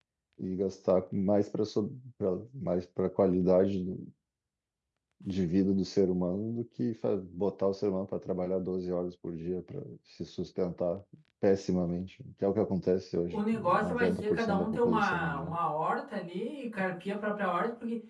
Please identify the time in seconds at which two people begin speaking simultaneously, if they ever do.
13 s

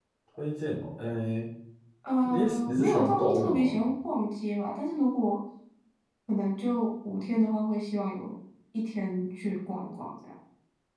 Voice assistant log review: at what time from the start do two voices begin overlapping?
2 s

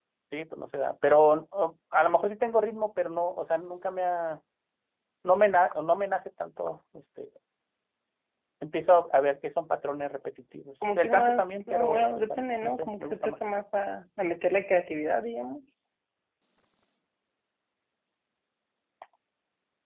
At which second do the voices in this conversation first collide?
11 s

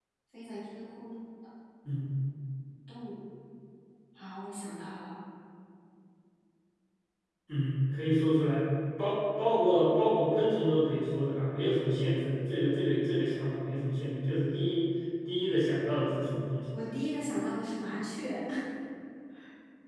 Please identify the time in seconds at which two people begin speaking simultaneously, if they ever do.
none

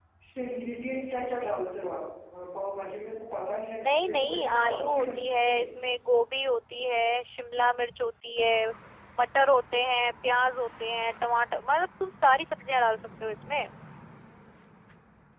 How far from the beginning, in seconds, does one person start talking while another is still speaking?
4 s

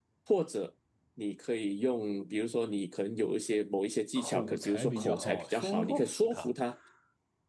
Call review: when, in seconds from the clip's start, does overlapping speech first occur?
4 s

